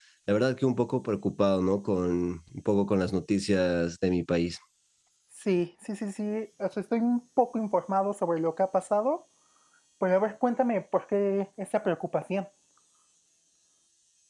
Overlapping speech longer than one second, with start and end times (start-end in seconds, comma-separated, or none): none